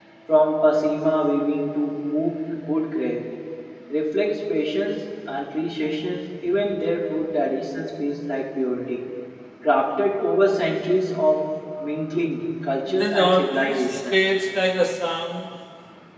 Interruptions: present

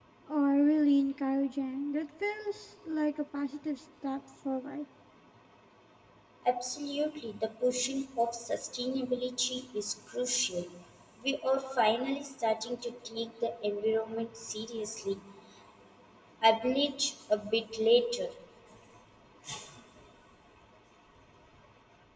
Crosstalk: none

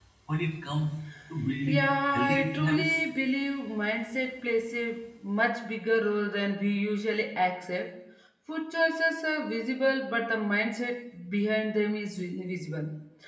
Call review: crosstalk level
present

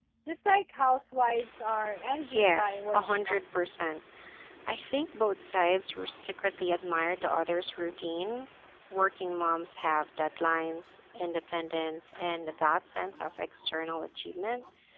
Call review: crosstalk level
present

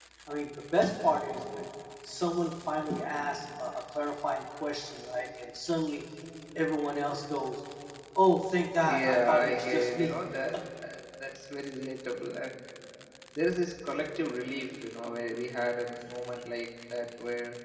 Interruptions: present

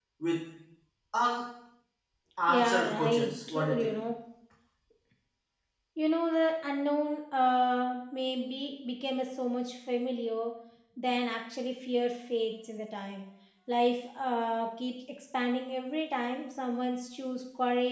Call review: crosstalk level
present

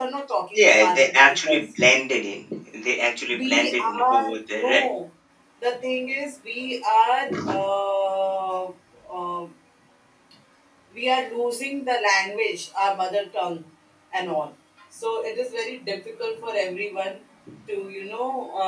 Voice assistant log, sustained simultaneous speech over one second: present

